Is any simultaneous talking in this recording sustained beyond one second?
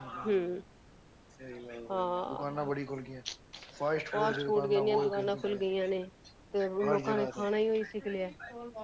Yes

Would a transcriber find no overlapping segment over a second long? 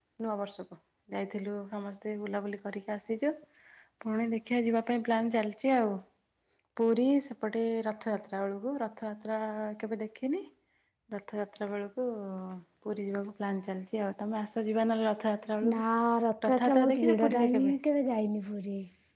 No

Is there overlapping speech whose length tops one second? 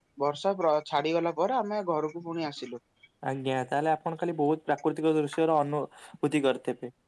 No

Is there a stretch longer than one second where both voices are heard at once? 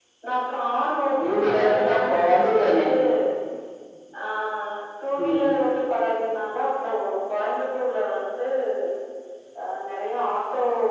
Yes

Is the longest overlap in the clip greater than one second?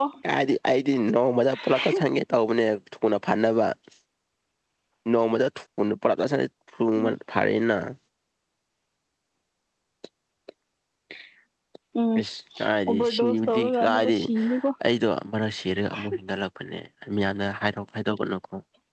Yes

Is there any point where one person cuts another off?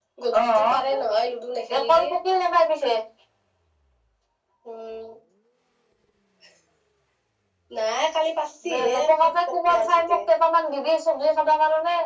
Yes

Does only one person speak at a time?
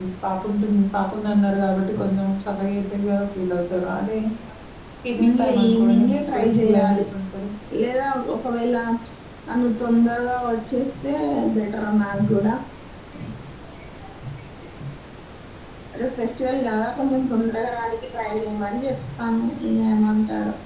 No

